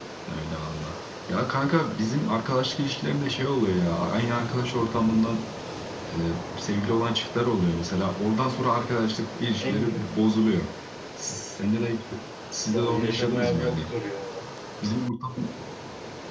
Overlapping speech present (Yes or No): Yes